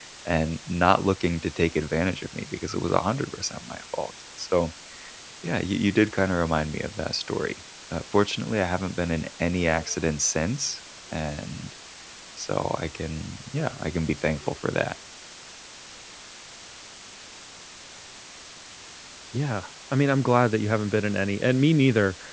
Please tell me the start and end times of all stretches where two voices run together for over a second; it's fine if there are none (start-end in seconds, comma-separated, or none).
none